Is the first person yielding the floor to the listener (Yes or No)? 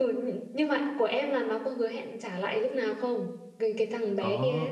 Yes